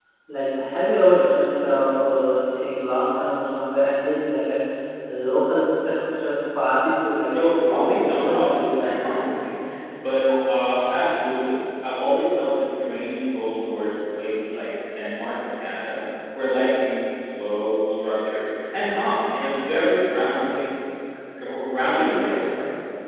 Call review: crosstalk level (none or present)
present